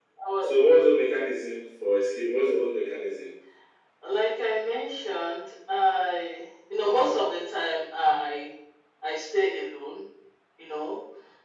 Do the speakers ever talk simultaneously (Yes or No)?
No